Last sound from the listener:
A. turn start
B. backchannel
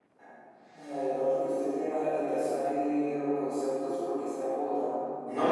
A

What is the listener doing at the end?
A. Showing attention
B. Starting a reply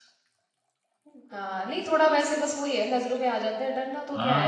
B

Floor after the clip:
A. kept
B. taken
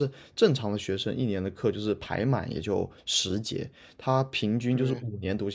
A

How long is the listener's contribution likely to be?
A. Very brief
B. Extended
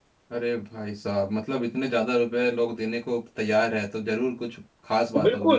B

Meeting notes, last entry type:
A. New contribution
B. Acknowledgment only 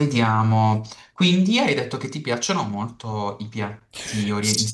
A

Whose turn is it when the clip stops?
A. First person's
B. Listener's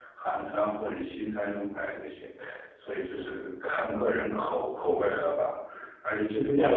A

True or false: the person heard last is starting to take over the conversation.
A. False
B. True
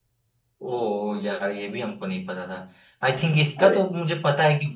A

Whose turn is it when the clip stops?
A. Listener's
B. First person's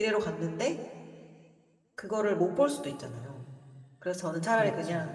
B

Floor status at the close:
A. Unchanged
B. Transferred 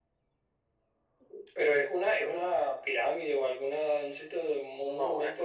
B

